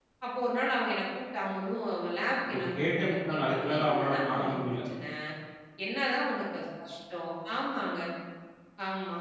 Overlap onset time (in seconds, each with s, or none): 2.5 s